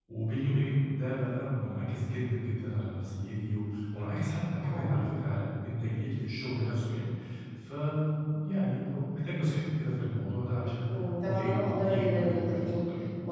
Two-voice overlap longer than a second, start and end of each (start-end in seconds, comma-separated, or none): 10.9-12.7